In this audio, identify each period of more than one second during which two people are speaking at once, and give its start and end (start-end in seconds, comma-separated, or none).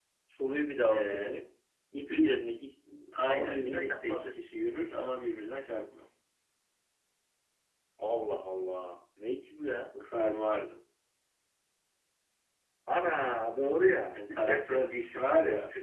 3.3-4.5